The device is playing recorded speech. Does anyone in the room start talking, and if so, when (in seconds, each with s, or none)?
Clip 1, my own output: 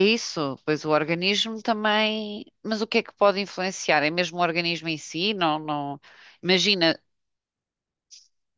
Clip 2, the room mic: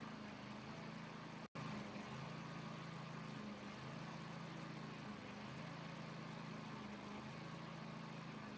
none